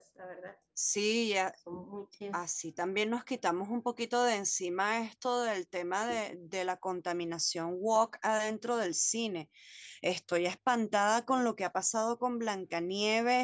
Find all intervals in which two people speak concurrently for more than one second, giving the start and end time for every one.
none

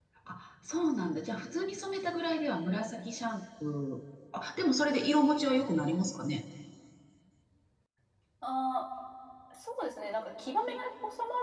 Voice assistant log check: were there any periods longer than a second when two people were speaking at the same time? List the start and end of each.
none

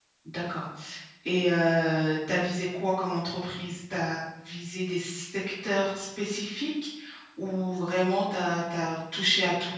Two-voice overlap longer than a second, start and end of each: none

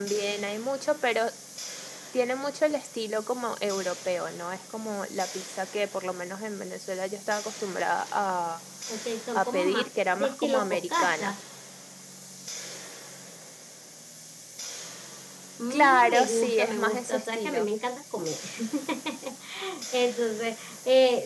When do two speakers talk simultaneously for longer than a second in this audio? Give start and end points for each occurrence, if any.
9.3-11.3, 15.7-17.7

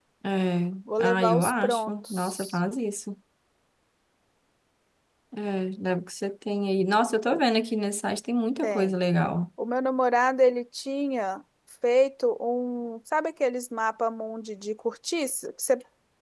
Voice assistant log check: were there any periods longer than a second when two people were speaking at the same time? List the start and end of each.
1.0-2.6

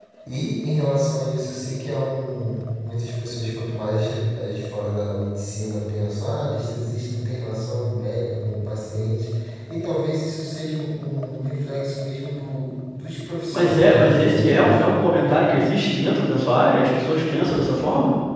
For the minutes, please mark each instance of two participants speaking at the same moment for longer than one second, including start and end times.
13.5-14.8

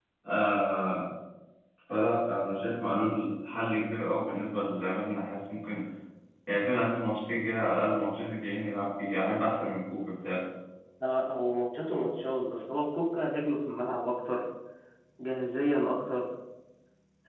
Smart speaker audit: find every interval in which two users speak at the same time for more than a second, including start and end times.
none

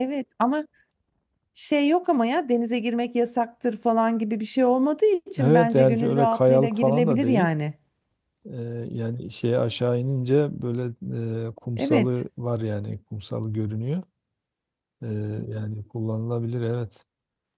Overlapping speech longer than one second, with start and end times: 5.4-7.5

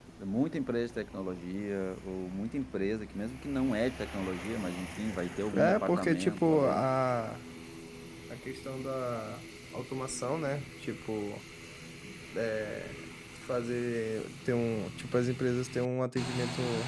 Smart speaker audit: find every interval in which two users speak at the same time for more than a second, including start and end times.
5.5-6.8

